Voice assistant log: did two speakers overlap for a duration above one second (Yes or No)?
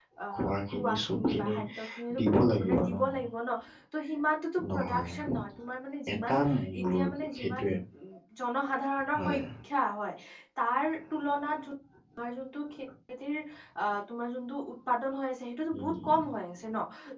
Yes